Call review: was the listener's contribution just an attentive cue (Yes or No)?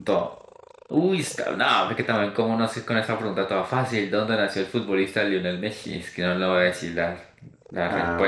No